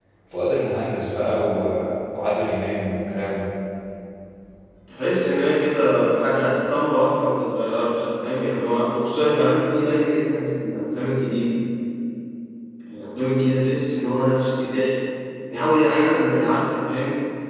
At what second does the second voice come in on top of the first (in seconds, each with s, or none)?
none